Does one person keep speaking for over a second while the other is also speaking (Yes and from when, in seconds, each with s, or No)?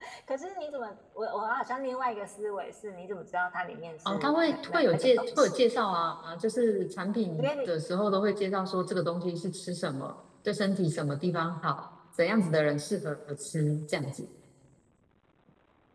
Yes, from 4.1 s